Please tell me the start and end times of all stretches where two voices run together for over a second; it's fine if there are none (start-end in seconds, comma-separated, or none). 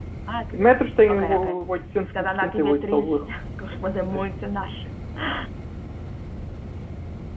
2.0-3.3